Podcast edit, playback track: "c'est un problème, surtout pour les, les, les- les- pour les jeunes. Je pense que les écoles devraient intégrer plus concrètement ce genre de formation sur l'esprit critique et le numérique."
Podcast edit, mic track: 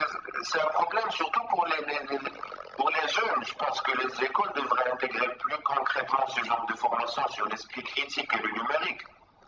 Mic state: echo only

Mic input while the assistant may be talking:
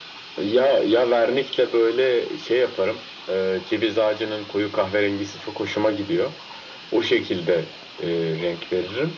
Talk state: echo only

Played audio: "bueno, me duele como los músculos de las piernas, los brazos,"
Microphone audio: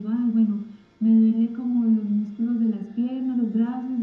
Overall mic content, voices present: echo only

